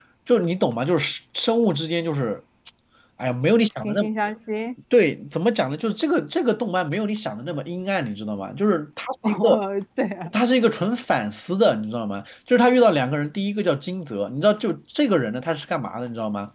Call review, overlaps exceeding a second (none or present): none